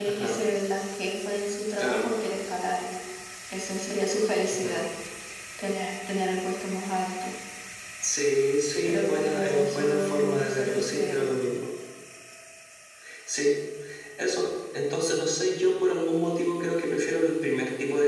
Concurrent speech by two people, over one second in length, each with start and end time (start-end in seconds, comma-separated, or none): 8.8-11.3